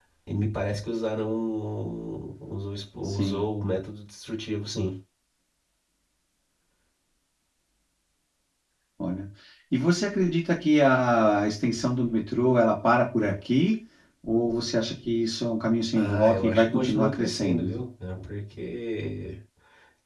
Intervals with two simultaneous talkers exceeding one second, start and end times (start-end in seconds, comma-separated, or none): 16.0-17.8